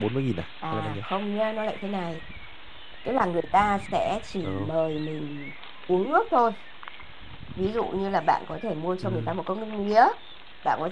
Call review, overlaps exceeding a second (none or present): none